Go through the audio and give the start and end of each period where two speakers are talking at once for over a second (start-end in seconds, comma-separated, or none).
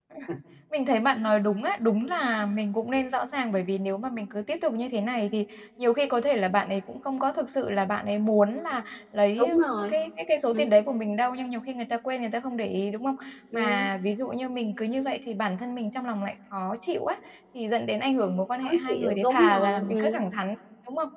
18.6-20.2